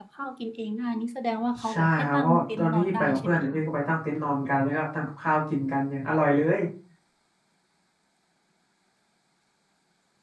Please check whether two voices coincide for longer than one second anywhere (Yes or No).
Yes